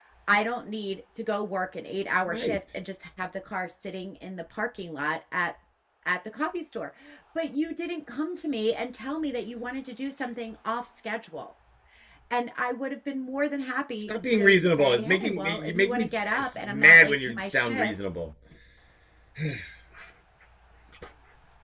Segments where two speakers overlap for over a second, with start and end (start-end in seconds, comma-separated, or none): 14.0-17.9